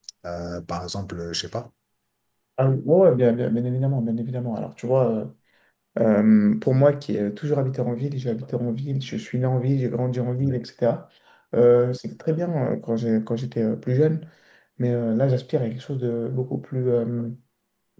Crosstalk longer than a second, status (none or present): none